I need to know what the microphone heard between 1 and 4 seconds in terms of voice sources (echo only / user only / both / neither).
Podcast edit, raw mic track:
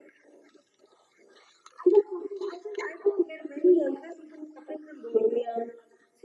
echo only